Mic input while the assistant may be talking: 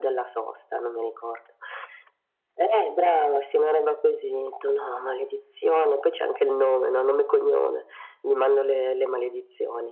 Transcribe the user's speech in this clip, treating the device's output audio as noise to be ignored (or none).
none